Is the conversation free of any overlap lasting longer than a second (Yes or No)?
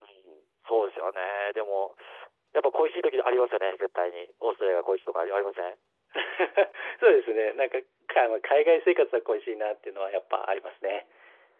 Yes